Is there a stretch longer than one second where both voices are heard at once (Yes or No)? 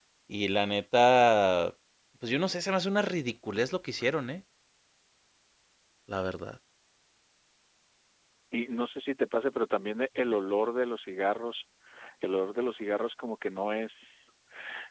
No